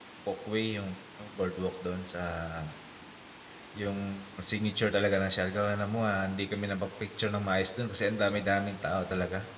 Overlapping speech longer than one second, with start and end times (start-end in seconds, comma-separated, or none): none